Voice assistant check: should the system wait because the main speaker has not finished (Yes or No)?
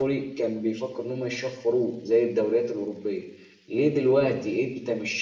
Yes